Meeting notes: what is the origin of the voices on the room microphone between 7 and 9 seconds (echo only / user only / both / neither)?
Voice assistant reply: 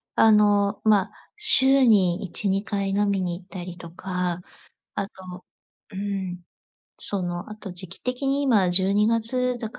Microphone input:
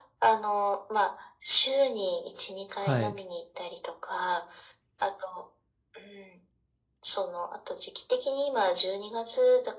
echo only